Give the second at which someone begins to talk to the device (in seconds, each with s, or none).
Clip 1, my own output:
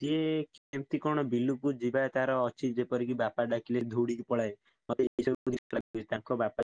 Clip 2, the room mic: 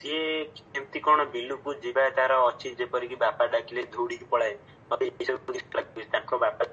none